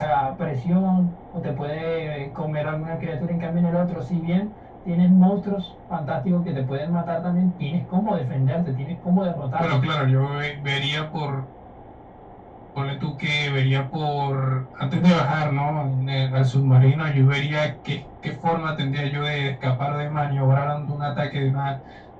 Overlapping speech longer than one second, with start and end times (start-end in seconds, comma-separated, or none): none